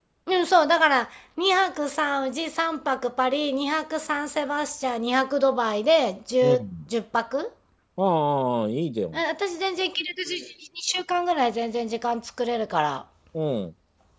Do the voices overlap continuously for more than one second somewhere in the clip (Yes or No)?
No